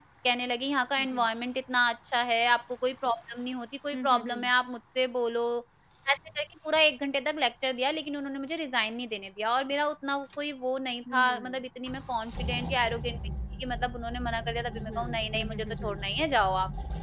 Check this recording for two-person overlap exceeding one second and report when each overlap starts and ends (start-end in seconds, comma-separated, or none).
14.7-16.0